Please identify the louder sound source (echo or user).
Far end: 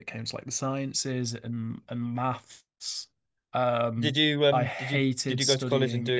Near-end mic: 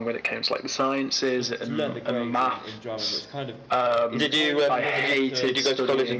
echo